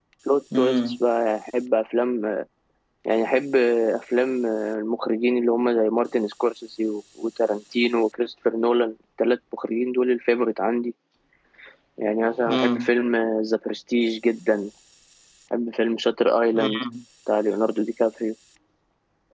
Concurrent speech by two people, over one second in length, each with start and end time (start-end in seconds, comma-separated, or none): none